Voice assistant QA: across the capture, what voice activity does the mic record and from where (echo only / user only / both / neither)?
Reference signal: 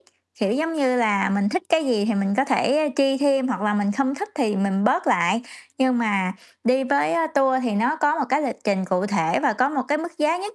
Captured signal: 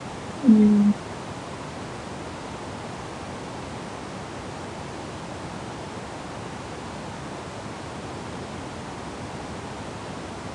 user only